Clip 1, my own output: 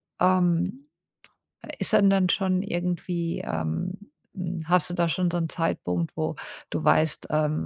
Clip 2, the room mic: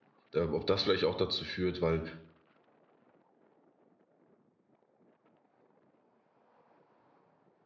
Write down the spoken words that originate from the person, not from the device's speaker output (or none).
ähm, ob das vielleicht auch dazu führt, weil